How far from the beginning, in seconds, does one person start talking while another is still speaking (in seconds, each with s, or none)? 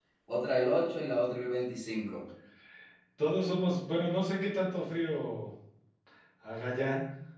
none